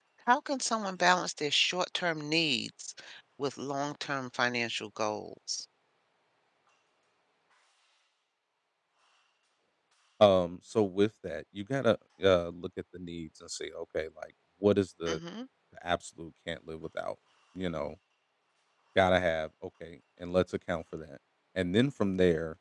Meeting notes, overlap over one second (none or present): none